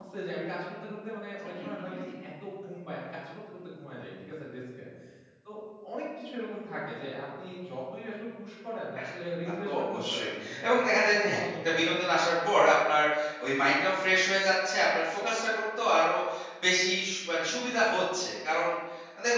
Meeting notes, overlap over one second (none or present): present